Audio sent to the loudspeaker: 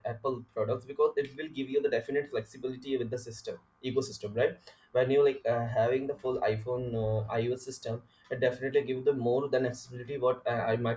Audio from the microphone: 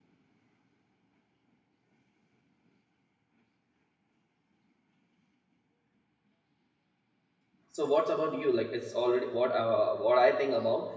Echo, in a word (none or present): none